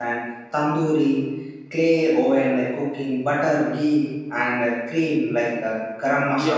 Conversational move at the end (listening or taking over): taking over